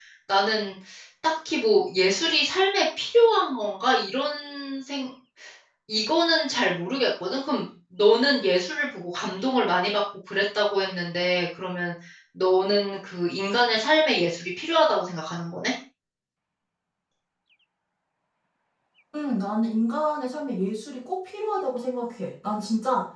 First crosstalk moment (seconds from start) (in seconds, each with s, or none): none